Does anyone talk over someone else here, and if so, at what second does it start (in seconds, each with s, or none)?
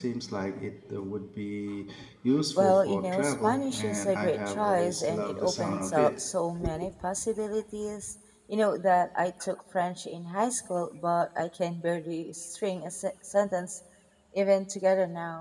2.6 s